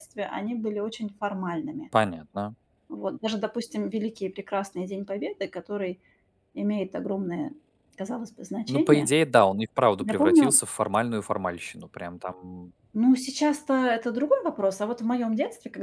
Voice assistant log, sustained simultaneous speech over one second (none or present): none